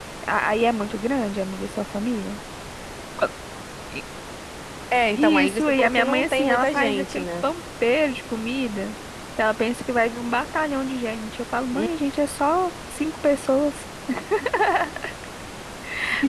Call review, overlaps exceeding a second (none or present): present